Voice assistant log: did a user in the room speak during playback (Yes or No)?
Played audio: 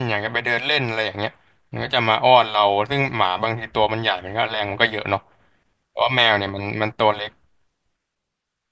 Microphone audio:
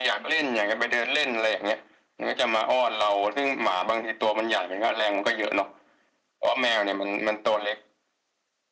No